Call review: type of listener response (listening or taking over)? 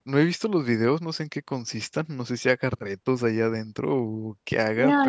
taking over